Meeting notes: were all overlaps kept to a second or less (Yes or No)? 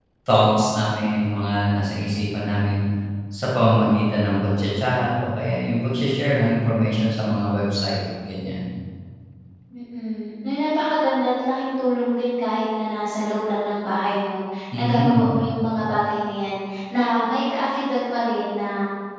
Yes